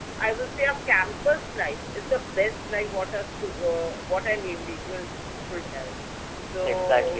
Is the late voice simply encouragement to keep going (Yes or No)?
Yes